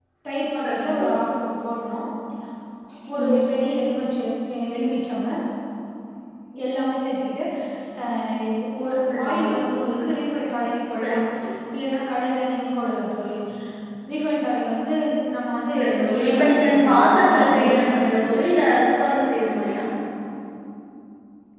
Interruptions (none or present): present